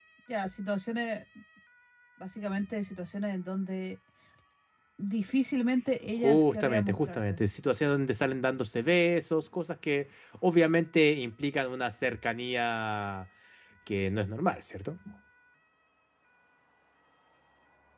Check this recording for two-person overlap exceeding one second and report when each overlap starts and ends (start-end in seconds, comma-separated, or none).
6.2-7.4